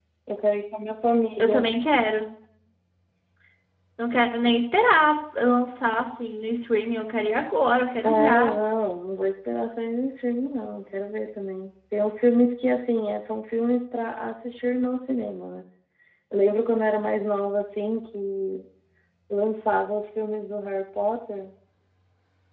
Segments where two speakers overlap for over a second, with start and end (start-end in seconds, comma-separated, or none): none